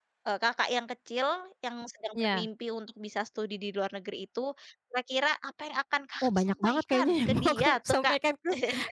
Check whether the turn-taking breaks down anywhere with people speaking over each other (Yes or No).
Yes